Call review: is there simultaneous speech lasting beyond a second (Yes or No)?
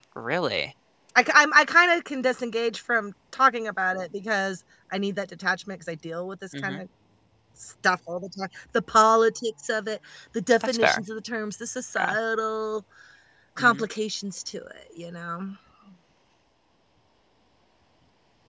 No